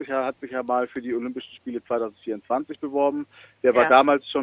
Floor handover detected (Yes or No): No